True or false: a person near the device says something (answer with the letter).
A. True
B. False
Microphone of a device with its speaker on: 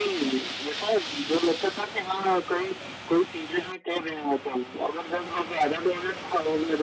B